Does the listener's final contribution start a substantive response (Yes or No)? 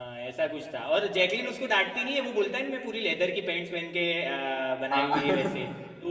No